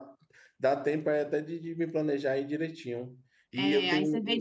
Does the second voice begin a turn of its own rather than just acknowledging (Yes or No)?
Yes